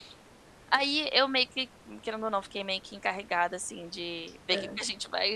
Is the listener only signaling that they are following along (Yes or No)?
Yes